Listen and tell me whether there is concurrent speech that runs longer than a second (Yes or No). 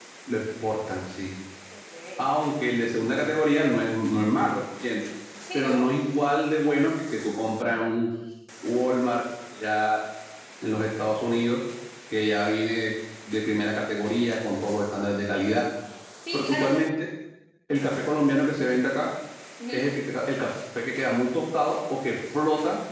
No